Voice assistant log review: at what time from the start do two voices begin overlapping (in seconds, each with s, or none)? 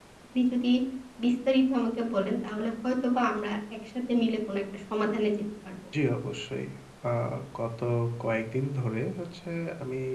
none